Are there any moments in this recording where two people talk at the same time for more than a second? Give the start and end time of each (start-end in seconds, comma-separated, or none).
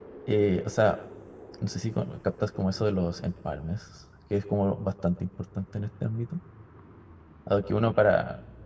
none